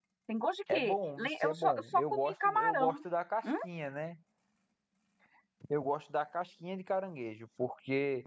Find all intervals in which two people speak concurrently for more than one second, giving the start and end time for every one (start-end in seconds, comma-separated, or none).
0.7-2.9